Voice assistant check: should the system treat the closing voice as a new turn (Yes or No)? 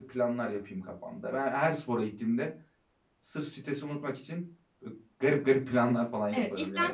Yes